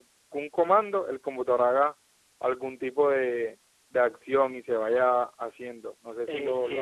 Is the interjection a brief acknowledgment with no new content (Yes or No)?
No